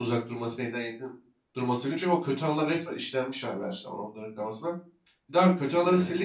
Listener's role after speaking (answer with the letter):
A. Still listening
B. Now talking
A